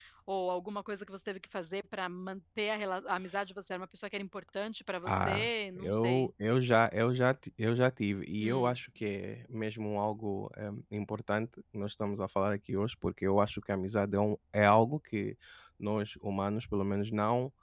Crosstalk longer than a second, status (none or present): present